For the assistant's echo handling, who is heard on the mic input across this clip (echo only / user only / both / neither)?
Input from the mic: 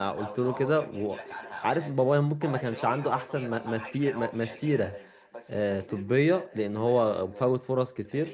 both